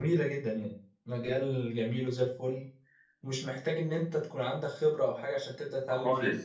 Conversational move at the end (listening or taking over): taking over